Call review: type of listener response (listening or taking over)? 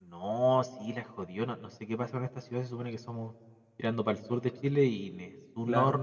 listening